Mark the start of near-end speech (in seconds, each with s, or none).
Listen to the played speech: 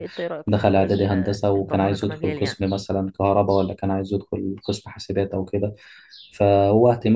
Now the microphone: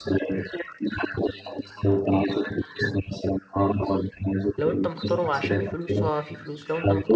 4.6 s